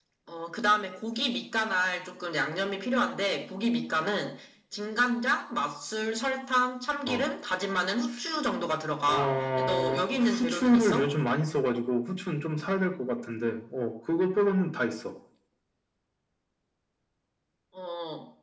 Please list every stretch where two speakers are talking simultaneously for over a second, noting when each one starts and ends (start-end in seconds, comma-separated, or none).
9.1-11.1